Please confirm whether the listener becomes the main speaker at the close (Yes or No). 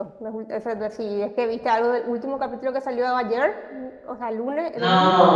Yes